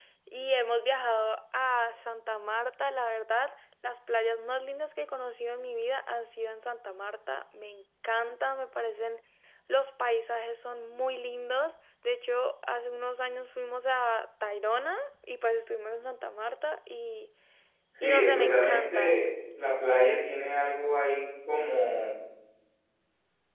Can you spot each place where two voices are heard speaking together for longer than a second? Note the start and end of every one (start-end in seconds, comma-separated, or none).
18.0-19.3